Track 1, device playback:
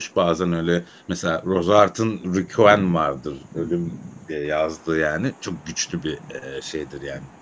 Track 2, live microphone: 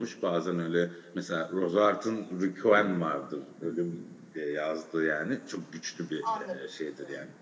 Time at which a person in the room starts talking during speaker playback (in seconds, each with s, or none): 6.2 s